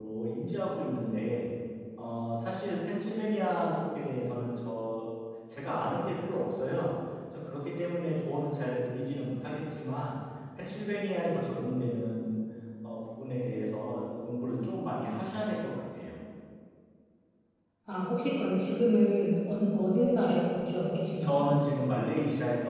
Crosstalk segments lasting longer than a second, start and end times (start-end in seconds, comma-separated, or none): none